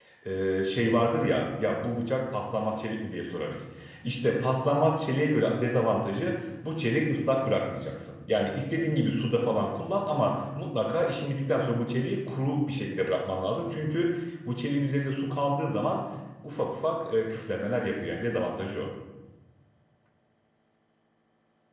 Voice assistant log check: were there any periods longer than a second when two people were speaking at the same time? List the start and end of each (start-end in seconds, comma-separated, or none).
none